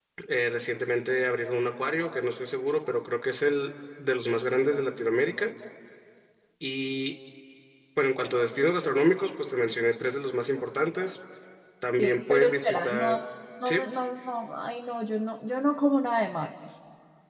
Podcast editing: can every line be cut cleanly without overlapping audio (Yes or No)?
No